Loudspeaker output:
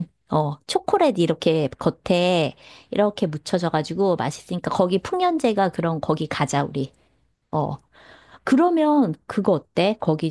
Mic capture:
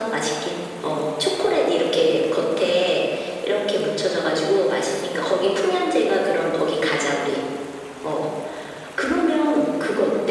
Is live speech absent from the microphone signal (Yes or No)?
Yes